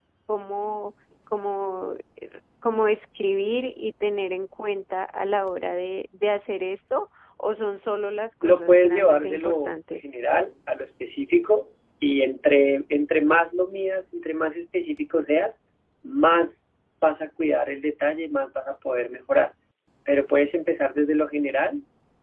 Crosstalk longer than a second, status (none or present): present